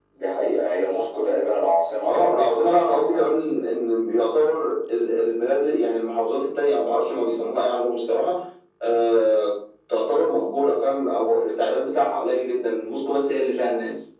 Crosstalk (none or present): present